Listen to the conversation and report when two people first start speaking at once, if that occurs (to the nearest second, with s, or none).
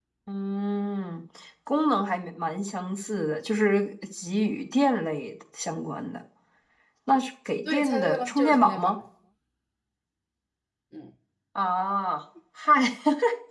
8 s